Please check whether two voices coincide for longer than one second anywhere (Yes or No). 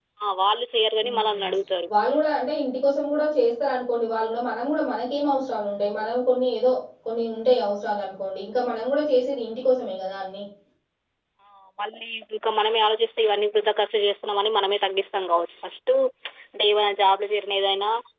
No